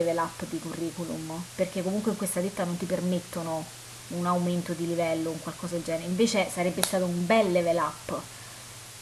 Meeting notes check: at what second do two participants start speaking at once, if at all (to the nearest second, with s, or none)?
none